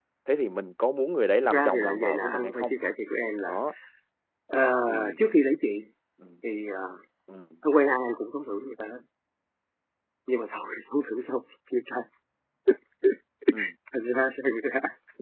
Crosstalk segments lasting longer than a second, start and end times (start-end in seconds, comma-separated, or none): 1.4-2.8